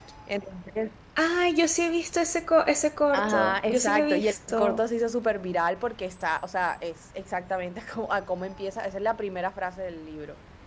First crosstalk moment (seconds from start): 3.1 s

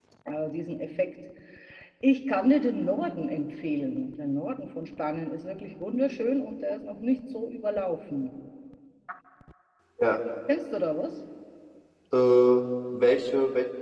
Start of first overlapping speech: none

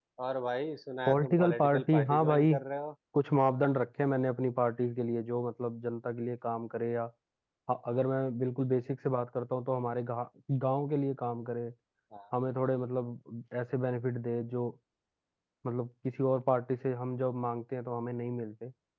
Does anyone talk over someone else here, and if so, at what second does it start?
1.1 s

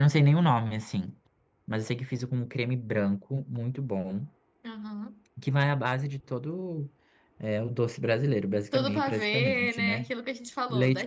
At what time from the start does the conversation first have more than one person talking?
8.7 s

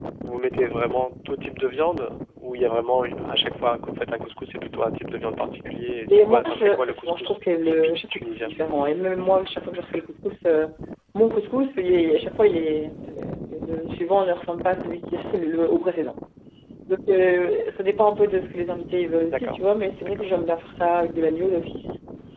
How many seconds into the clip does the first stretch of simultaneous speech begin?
6.1 s

